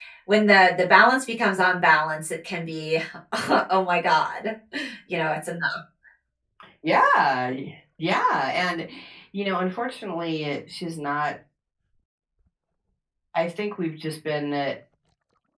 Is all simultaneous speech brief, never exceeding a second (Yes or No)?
Yes